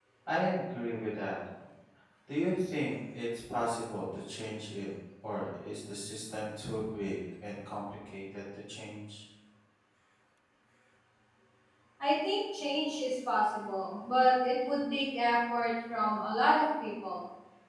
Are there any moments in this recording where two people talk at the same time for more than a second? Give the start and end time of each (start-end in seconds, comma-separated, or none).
none